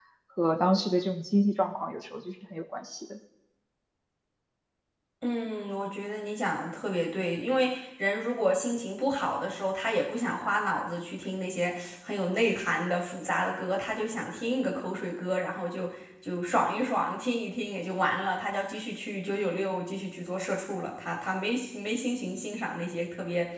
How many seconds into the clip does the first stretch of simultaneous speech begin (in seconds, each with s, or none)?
none